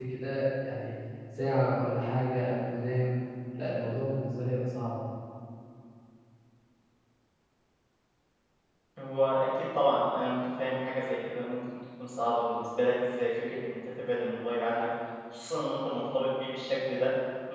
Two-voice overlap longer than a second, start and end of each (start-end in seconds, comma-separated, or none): none